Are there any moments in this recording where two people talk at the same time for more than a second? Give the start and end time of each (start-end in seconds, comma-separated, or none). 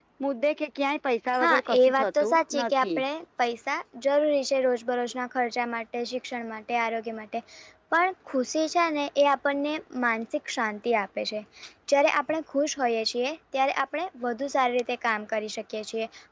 1.4-3.0